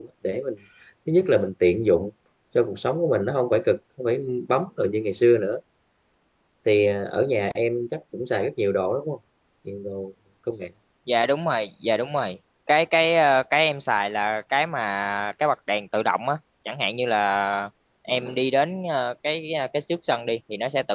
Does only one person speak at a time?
Yes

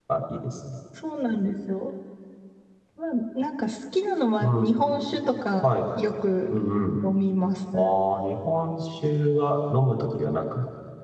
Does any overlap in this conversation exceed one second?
No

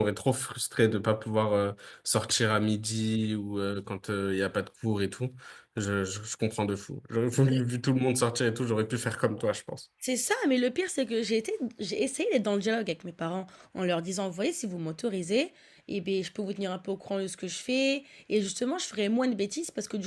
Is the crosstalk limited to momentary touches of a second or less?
Yes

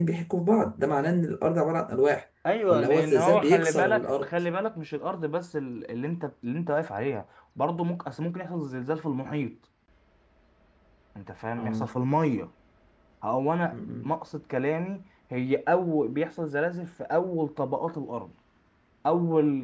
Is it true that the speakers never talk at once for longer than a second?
No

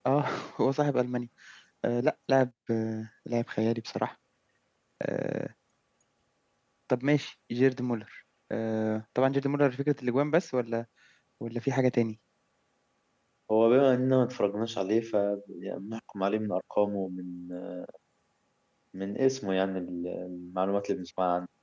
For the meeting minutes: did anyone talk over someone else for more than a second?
No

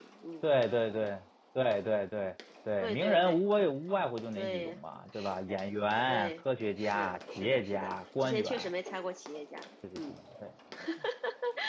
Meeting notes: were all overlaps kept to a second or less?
No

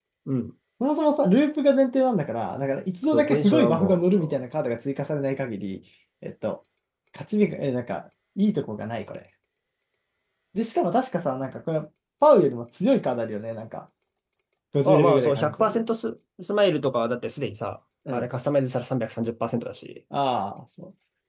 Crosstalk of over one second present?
Yes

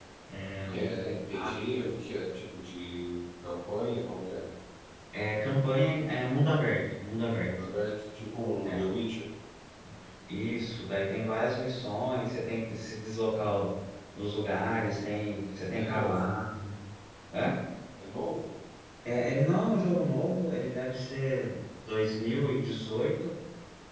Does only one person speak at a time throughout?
No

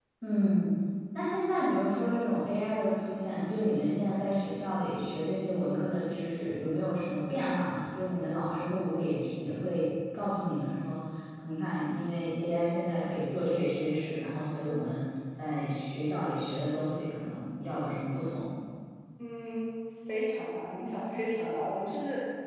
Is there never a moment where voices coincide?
Yes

